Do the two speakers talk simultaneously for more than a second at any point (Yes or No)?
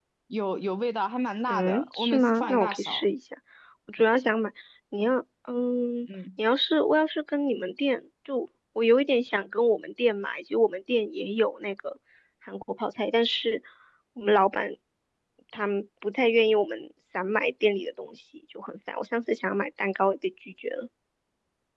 Yes